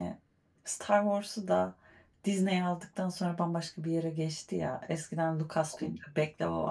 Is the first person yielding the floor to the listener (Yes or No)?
No